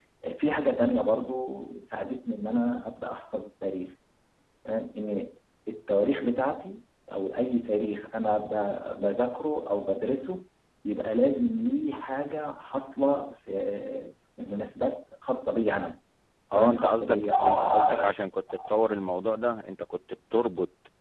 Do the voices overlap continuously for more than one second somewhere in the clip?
Yes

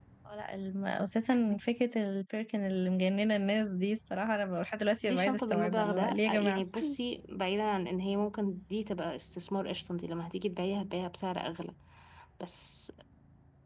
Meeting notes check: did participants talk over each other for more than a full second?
Yes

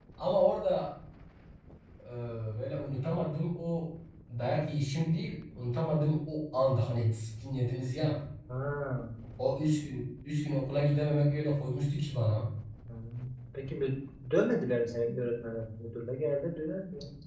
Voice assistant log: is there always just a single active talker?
Yes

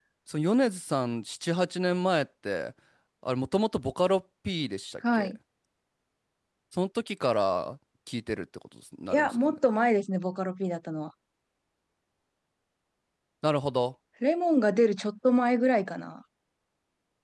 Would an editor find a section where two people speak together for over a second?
No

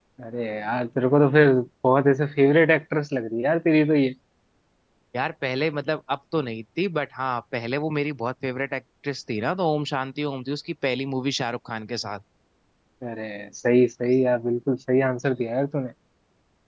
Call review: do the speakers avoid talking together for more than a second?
Yes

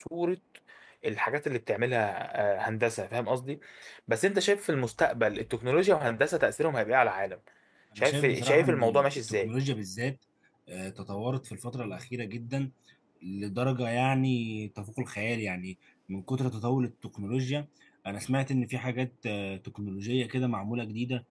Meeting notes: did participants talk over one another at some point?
Yes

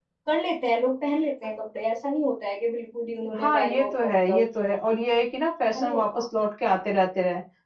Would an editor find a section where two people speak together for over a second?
Yes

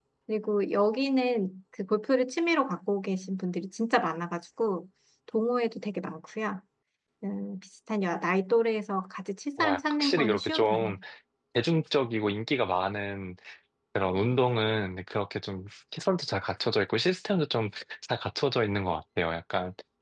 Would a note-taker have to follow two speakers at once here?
Yes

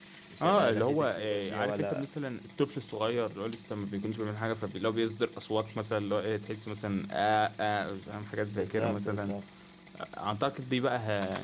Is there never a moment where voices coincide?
No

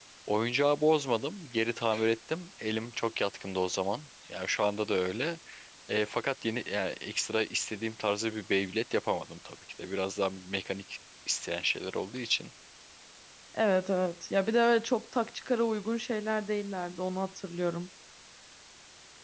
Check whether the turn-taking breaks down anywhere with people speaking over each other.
No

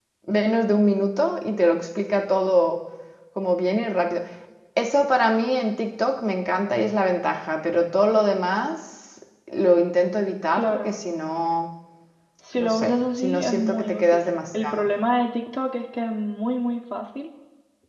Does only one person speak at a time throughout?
No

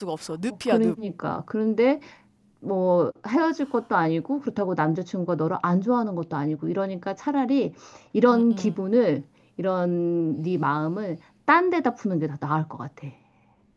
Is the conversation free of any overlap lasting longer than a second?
Yes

